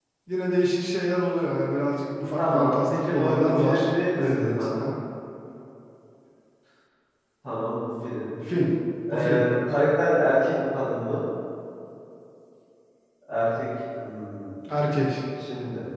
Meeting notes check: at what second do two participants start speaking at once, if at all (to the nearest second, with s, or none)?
2 s